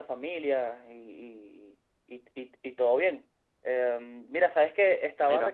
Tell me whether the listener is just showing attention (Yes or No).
Yes